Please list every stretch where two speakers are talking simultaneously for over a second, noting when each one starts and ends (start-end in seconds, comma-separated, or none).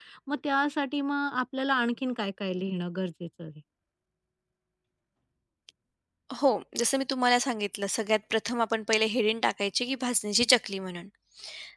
none